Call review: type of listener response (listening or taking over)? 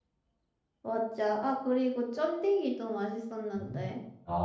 taking over